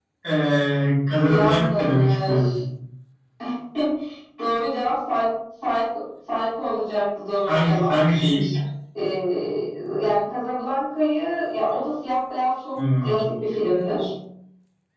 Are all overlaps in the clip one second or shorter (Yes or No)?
No